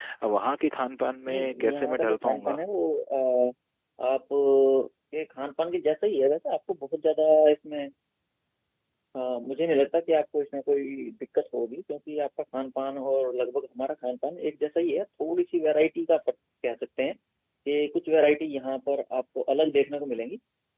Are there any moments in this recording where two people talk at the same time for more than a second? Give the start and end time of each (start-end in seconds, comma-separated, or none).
1.3-2.6